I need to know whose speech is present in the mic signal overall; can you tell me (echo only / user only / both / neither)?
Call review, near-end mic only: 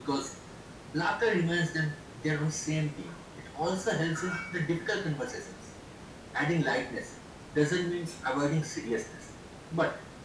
echo only